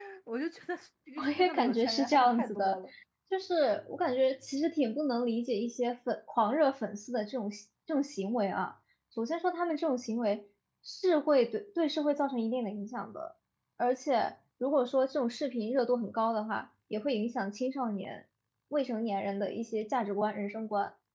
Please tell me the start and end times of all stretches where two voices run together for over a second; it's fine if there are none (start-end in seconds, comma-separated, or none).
1.2-2.8